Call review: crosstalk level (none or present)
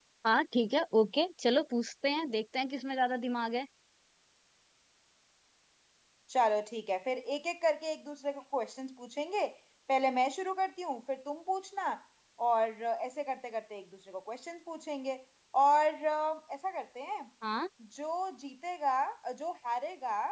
none